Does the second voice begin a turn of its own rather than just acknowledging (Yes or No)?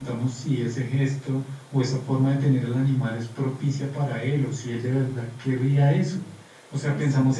No